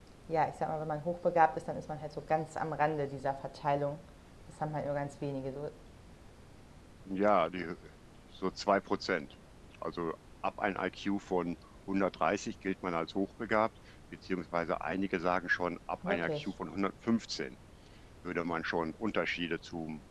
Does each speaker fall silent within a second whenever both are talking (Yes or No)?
Yes